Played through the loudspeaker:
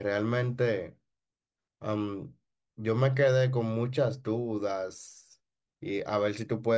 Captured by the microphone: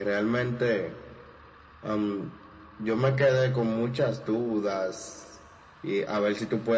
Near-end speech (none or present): none